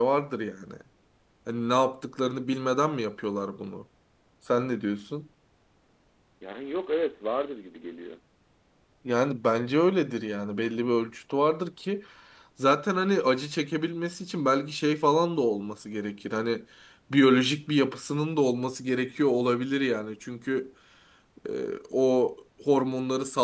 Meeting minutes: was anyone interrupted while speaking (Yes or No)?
No